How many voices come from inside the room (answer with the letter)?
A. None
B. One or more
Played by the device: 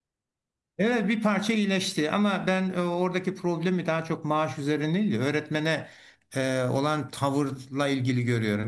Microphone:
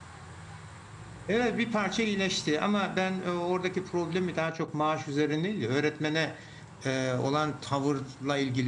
A